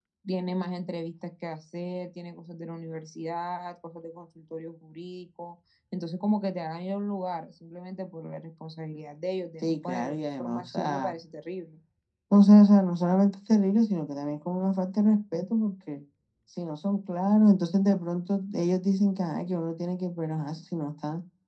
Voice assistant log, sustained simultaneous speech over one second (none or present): present